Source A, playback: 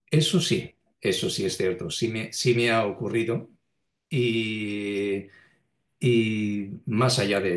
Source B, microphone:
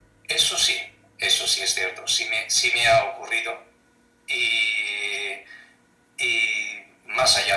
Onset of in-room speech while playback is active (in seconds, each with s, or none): none